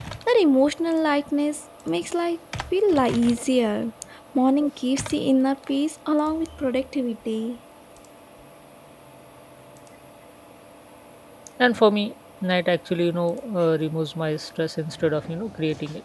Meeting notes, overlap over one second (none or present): none